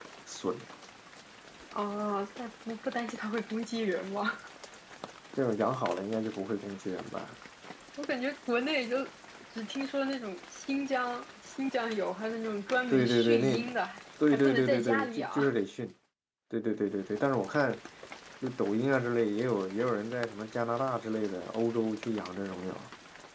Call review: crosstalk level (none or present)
present